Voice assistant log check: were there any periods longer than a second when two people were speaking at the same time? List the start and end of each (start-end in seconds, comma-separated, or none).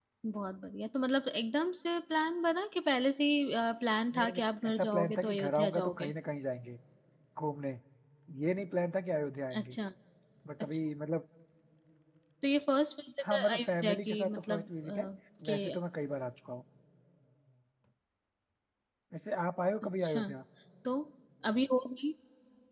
4.1-6.1, 13.3-15.1